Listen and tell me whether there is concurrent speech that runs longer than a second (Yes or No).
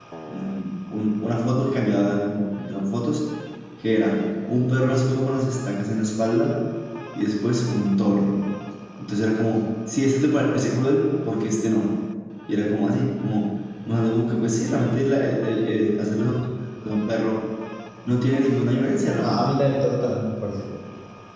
No